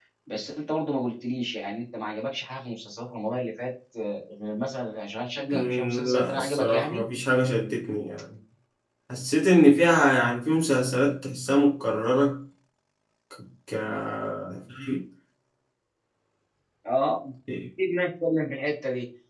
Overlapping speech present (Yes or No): Yes